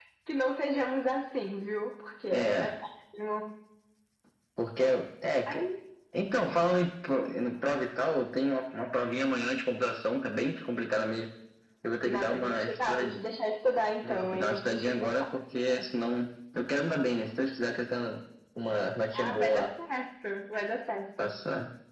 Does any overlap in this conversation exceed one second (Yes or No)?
Yes